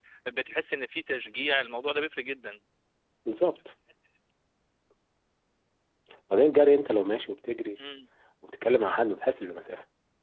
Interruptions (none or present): none